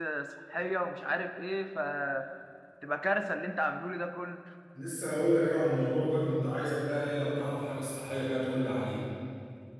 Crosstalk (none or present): none